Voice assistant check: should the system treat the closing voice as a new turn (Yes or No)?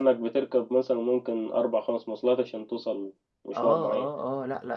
Yes